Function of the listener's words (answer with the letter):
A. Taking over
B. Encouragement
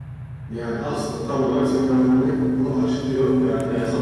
B